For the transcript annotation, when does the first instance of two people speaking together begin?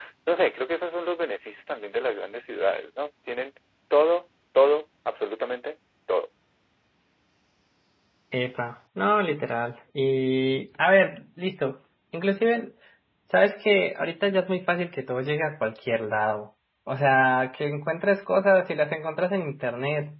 none

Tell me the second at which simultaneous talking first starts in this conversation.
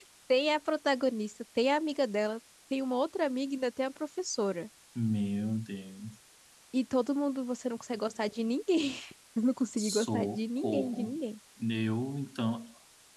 10 s

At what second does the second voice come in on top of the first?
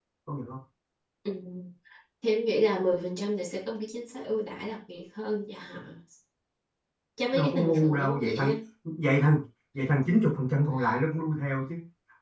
7 s

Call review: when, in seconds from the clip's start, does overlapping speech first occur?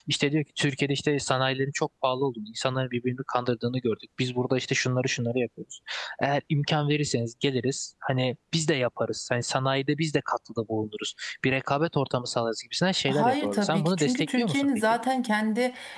13 s

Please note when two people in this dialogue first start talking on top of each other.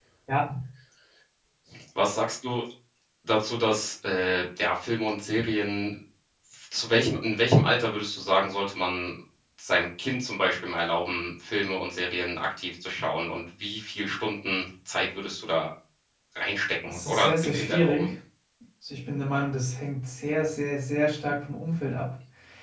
17 s

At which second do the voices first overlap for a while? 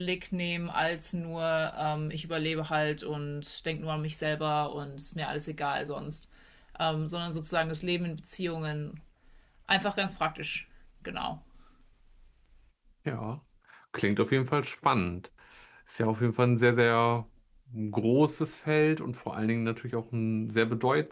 none

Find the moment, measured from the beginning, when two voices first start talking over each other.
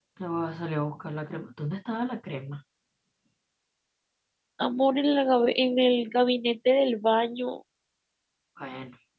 none

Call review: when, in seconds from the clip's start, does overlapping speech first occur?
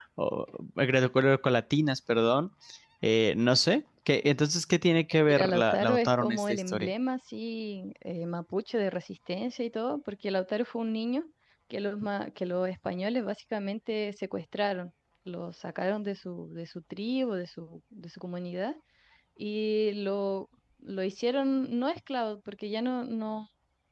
5 s

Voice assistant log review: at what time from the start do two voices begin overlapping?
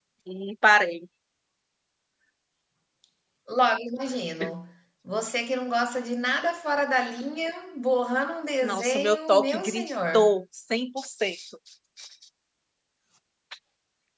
9 s

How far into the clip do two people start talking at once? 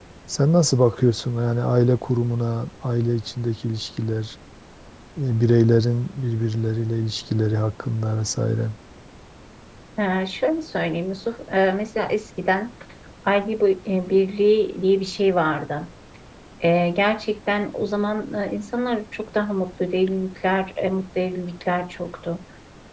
none

